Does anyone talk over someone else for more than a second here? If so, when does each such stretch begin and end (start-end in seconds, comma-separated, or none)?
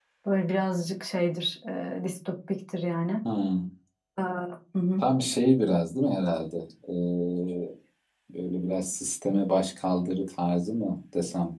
none